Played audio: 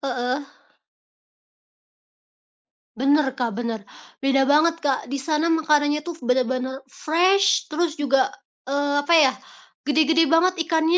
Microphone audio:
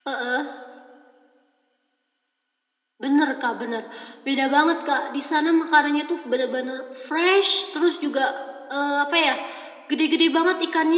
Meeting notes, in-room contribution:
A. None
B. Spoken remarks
A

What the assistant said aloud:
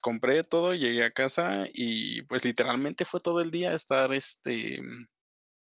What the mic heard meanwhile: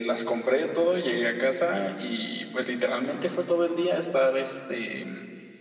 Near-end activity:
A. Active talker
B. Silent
B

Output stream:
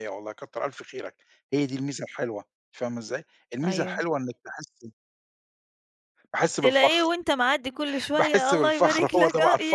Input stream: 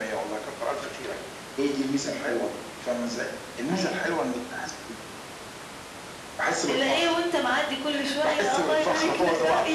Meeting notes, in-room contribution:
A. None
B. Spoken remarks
A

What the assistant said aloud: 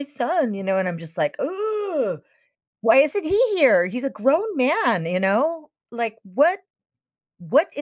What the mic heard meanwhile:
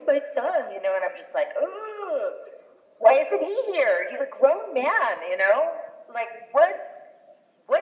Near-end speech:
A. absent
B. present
A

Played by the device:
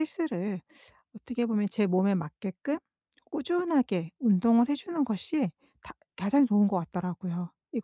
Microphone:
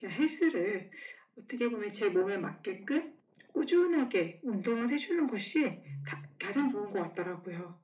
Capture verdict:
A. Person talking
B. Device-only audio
A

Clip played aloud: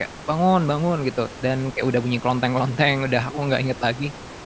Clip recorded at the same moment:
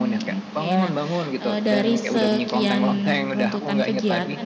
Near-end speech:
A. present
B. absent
A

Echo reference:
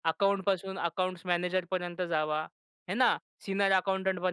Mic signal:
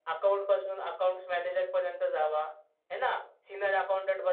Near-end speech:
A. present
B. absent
B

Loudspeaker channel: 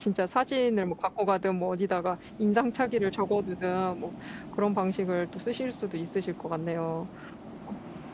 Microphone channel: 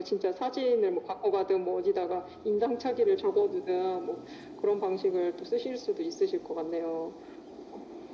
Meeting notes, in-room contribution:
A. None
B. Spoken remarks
A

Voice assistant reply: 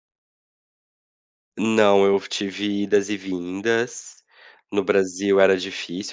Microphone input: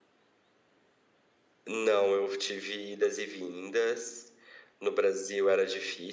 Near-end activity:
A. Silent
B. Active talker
A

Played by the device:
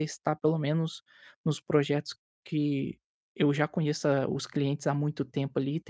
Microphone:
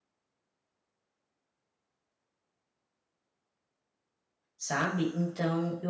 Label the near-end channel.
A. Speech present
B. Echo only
A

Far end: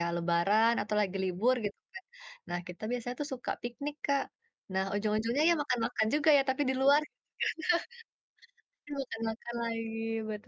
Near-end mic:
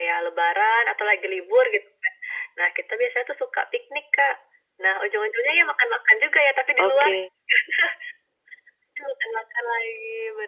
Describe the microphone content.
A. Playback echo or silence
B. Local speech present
B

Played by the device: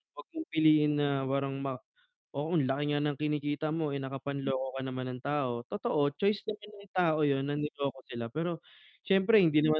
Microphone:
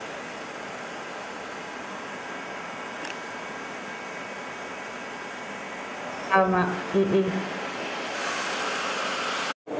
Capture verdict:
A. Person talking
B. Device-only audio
A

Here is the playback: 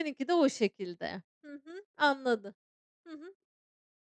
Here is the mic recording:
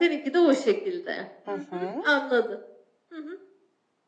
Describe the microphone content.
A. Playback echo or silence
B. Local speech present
B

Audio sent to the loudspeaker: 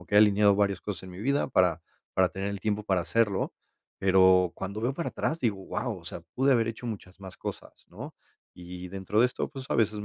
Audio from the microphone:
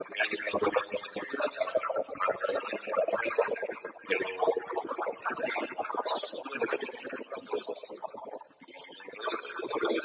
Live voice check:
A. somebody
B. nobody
B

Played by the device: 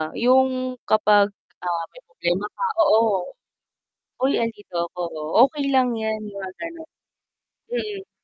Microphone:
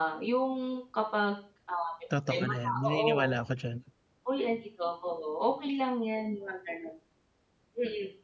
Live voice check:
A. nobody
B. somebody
B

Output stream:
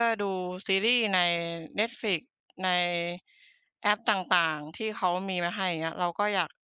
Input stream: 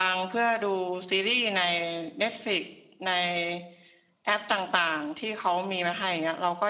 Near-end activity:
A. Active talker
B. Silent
B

